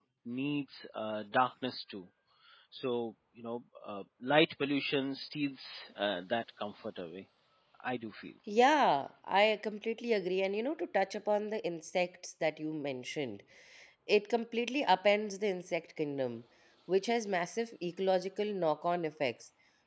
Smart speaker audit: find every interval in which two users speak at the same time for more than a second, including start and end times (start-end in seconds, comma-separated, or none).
none